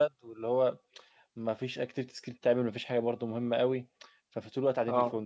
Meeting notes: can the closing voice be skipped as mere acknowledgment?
Yes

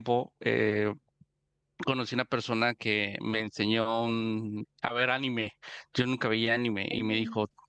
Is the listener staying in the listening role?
Yes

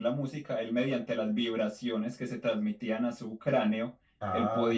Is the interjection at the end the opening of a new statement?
No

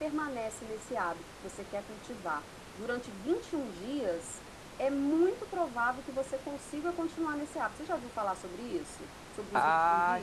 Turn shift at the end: Yes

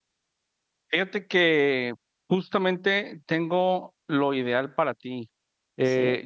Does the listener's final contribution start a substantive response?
No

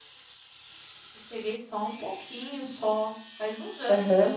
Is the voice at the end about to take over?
No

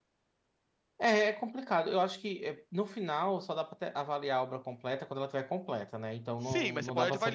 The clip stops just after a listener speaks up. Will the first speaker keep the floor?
No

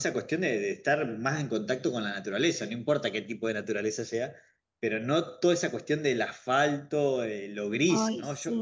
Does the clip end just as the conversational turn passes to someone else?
No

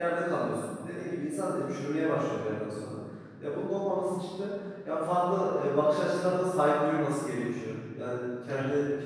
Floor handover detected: No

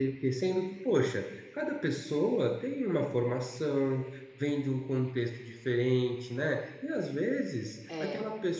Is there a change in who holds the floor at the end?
No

